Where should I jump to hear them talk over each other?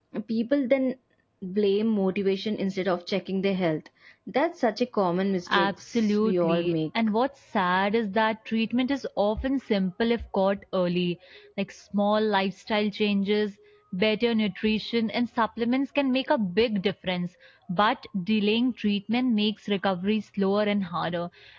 5.5 s

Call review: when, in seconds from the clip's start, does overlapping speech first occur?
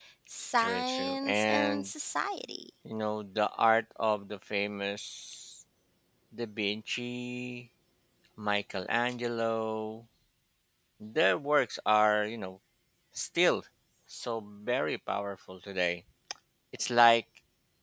0.6 s

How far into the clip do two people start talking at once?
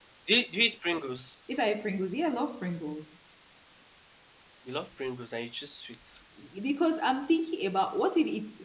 none

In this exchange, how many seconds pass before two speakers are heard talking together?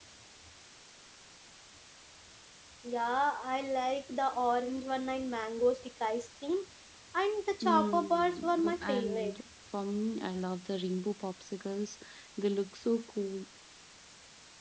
7.6 s

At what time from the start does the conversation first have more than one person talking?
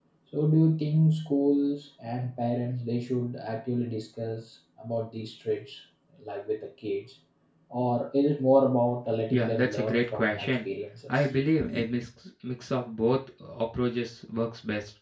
9.3 s

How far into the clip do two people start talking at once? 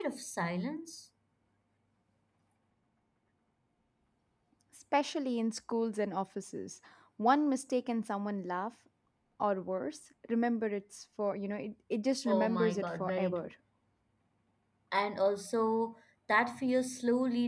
12.3 s

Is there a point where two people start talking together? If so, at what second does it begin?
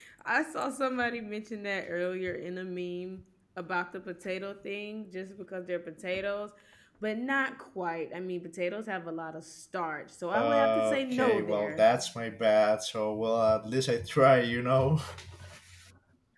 10.3 s

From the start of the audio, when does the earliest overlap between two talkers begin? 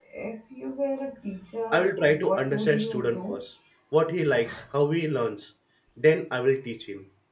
1.7 s

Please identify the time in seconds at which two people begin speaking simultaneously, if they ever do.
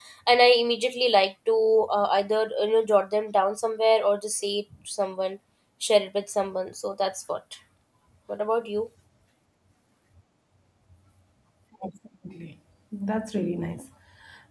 none

